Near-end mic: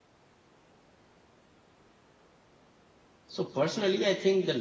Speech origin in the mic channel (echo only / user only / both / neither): user only